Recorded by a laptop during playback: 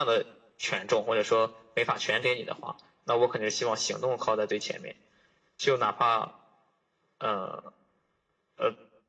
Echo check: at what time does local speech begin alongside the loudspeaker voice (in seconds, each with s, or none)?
none